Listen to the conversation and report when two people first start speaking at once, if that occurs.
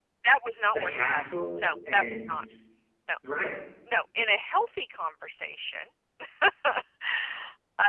0.7 s

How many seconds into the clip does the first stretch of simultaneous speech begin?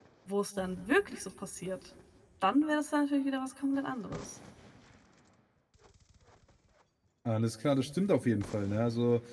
none

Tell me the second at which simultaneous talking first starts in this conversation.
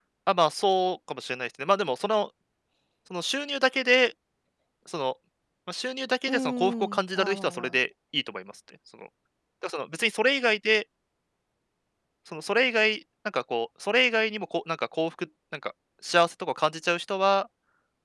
6.3 s

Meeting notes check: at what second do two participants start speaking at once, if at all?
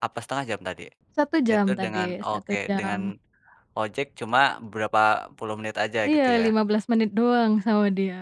1.7 s

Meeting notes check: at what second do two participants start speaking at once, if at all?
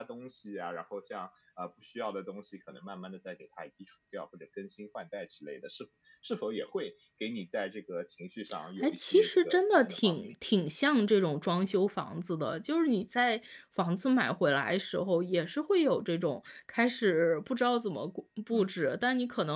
8.8 s

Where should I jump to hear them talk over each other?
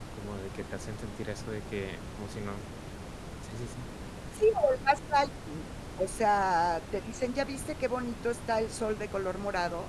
none

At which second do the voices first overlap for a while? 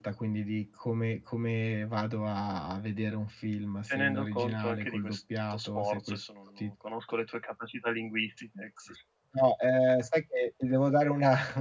3.9 s

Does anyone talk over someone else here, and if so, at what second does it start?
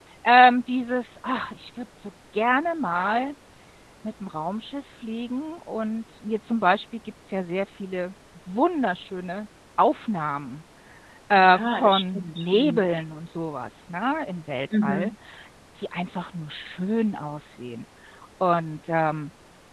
11.4 s

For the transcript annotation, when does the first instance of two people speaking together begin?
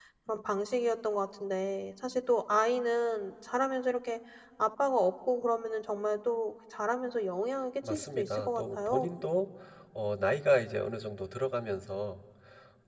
7.8 s

